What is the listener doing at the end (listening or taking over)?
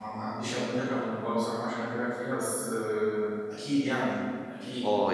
taking over